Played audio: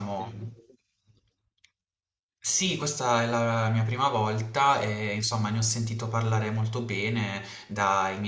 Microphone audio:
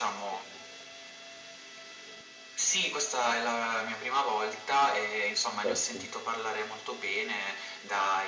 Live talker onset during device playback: 6 s

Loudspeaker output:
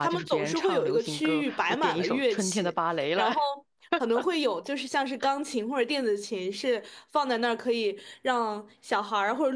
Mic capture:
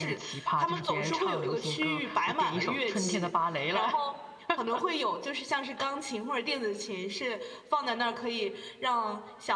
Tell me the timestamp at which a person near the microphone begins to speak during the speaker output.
3 s

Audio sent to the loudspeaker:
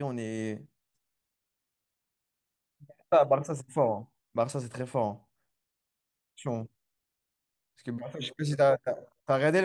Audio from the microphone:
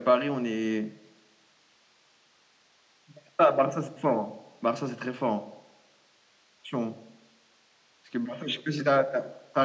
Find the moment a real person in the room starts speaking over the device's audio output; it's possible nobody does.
none

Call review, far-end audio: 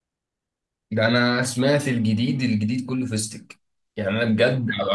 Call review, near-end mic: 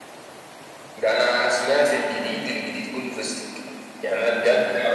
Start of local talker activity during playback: none

